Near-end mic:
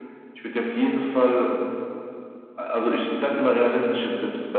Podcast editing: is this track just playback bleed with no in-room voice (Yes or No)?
Yes